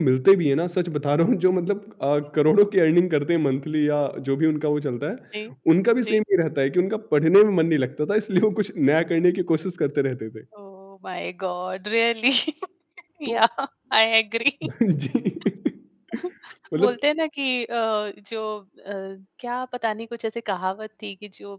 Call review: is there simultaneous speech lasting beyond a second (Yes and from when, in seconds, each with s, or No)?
No